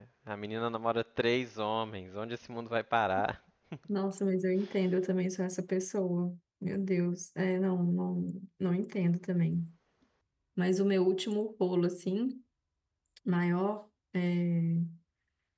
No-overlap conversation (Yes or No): Yes